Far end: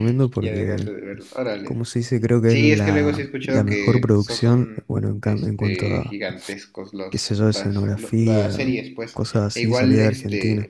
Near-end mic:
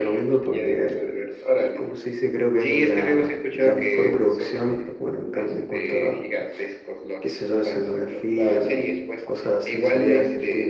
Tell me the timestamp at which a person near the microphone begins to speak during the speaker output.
none

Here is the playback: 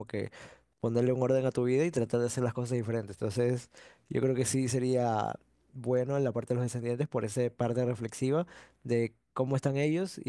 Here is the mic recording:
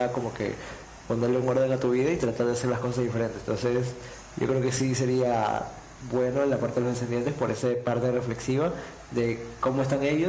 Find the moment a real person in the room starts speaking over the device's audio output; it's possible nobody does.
none

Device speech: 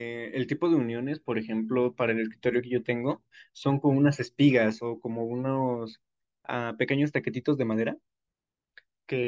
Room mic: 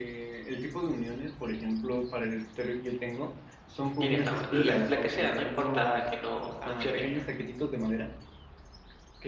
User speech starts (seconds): 4.0 s

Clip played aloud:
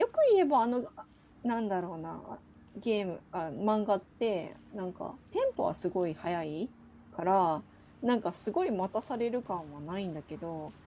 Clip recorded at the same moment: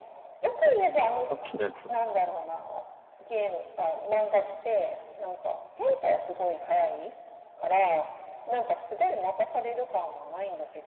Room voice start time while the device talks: 1.3 s

